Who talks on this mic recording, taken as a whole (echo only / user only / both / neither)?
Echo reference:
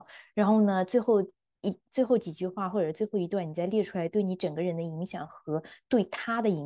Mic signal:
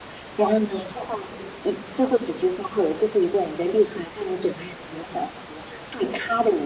echo only